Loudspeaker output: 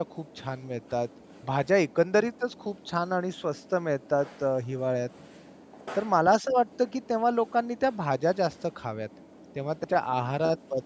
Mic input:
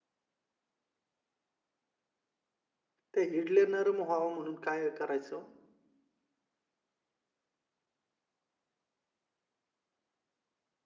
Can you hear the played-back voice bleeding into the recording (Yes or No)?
No